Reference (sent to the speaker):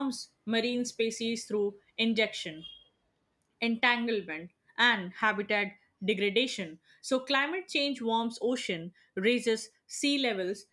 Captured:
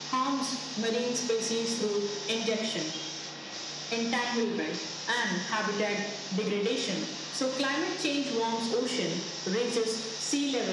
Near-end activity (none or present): none